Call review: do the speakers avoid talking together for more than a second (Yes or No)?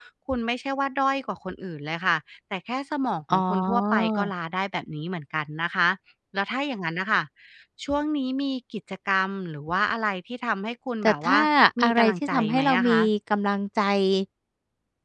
No